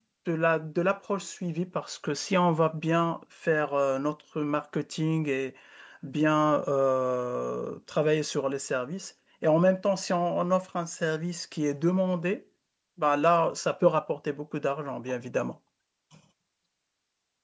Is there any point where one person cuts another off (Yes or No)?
No